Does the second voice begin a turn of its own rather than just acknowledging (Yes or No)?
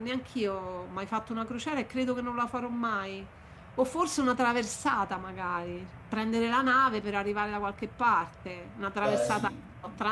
No